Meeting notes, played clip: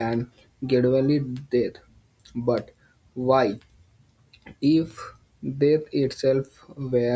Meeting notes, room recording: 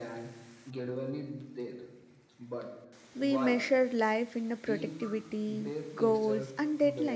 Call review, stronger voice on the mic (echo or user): user